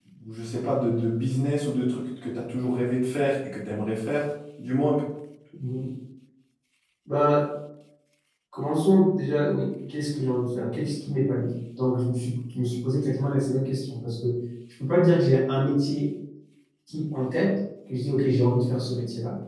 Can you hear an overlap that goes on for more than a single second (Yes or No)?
No